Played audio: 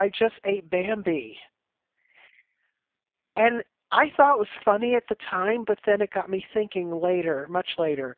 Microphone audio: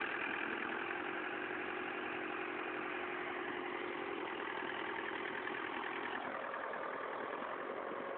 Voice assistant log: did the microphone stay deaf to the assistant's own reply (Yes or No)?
Yes